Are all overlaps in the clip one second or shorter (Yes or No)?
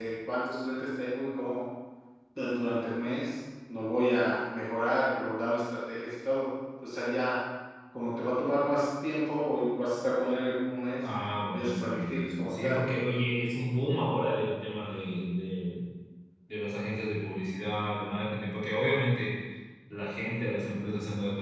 No